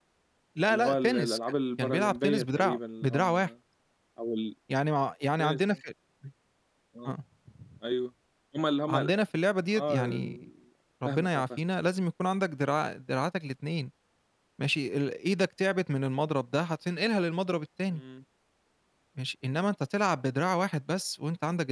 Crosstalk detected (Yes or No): Yes